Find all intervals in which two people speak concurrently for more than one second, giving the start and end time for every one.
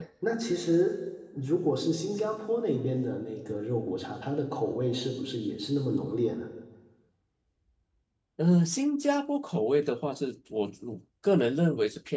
none

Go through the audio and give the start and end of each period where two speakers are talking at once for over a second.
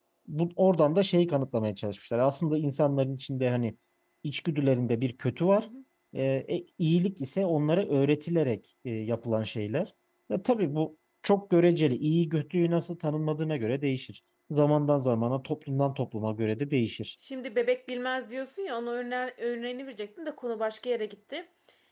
none

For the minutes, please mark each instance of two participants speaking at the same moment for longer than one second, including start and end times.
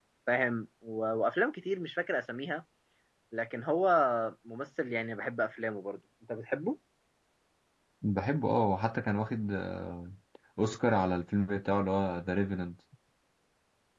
none

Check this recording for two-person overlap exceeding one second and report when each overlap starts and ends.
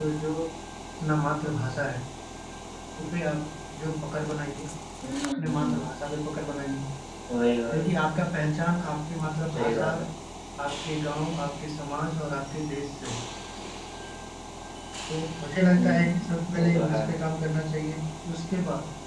15.8-17.0

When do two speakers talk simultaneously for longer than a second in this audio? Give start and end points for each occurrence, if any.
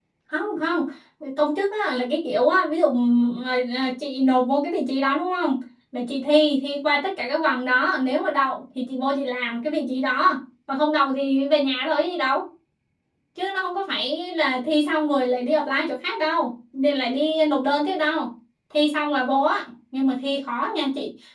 none

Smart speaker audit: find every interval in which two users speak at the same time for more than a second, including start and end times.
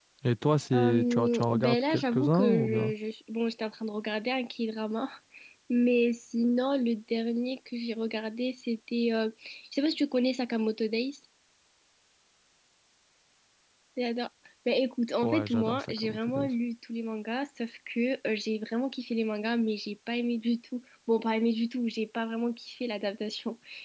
0.7-2.9, 15.2-16.5

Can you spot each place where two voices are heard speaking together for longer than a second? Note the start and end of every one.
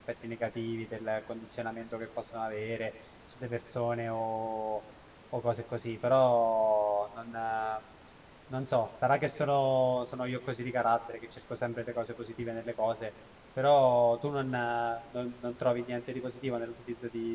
none

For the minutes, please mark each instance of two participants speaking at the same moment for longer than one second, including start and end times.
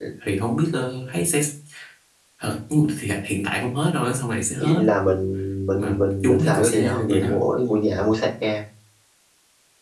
5.8-7.3

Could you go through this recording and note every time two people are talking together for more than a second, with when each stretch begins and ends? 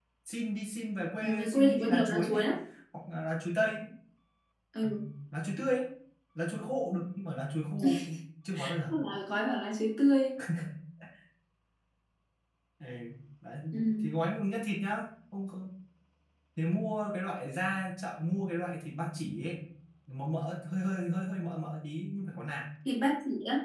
1.2-2.5

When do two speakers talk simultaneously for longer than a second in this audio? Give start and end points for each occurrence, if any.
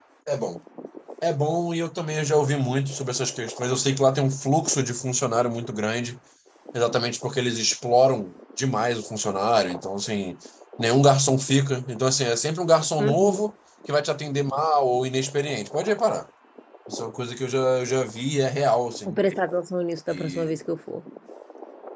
none

